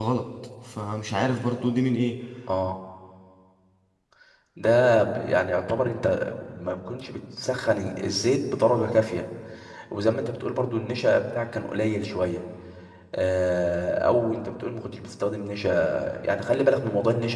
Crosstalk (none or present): none